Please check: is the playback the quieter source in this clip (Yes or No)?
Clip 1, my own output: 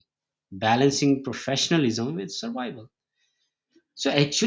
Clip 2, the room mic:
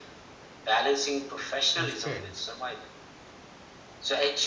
No